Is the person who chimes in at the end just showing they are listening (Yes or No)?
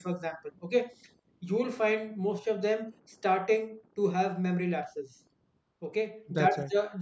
Yes